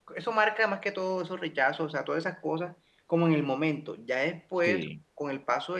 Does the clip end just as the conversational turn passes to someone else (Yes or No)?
No